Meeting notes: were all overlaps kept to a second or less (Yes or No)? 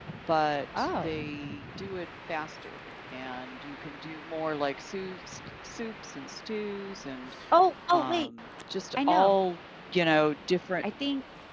Yes